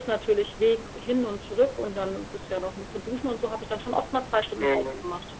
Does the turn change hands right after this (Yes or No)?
Yes